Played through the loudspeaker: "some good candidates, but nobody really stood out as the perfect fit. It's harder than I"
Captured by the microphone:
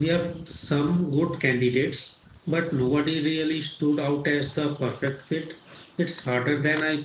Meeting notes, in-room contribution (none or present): none